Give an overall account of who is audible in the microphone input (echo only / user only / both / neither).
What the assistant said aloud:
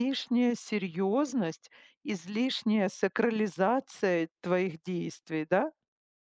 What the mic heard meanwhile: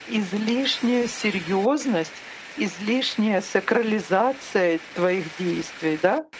echo only